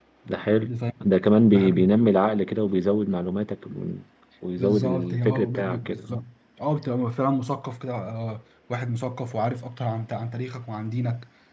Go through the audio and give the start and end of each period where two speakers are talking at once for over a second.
4.6-6.2

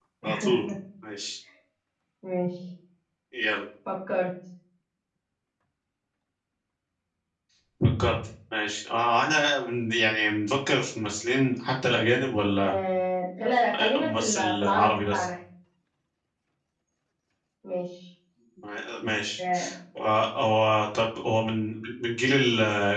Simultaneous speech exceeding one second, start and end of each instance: 13.8-15.2

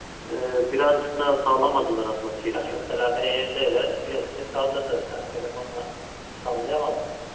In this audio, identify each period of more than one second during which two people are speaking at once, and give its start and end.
none

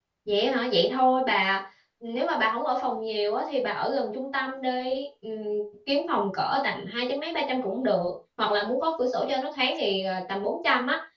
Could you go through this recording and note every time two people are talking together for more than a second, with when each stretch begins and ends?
none

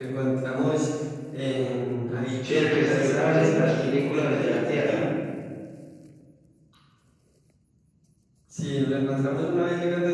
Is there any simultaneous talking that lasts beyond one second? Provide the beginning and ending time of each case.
2.5-5.0

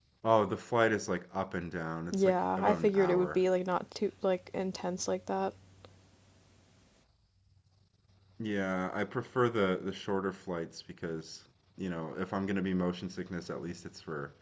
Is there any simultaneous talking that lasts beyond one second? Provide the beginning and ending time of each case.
2.1-3.4

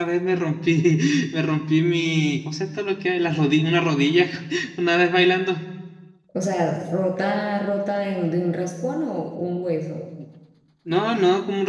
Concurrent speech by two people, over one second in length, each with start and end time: none

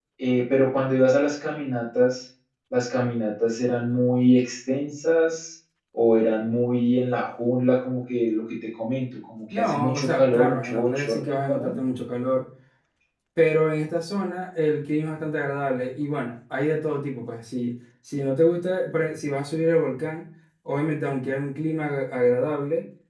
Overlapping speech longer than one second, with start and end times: 9.5-11.7

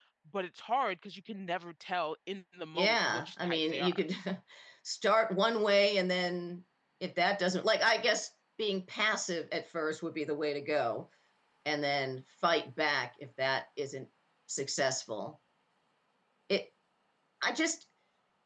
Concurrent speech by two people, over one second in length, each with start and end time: 2.7-4.0

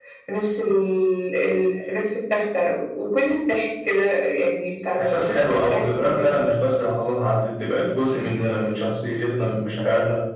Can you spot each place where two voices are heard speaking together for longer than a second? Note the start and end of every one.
5.0-6.4

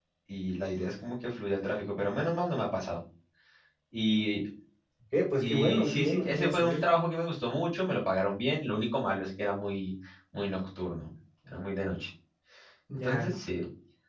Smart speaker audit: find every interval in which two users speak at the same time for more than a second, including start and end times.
5.4-6.8

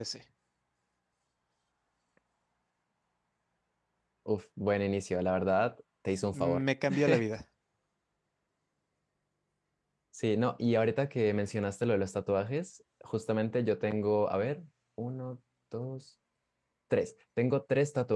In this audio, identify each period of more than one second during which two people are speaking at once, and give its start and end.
none

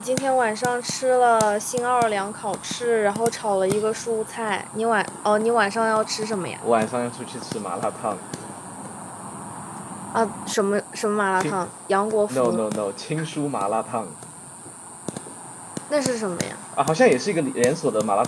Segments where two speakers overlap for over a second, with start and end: none

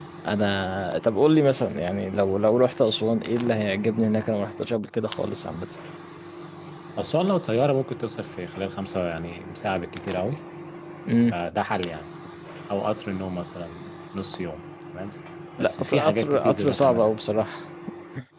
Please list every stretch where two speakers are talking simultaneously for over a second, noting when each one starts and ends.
15.6-17.1

